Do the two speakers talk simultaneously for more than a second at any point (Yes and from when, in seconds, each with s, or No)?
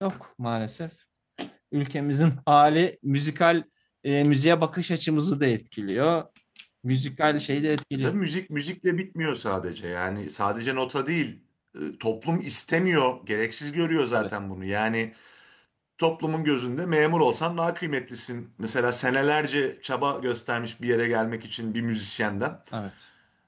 No